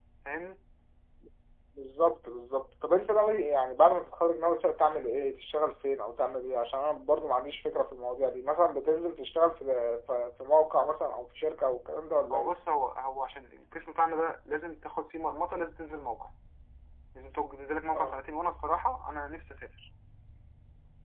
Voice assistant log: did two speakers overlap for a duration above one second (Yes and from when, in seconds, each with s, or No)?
No